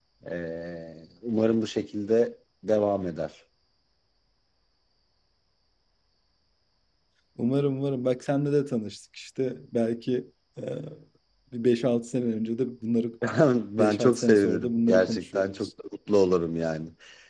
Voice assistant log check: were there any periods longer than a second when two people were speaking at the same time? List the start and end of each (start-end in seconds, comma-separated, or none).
13.8-15.7